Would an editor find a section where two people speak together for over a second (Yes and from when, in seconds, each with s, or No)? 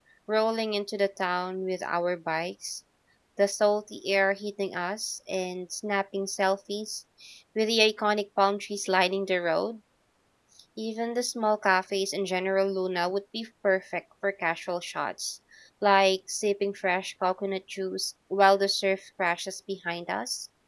No